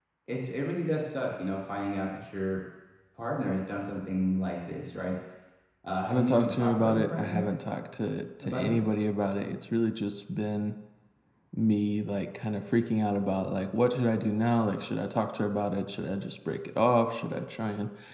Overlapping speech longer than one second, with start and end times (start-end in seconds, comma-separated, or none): 6.1-7.5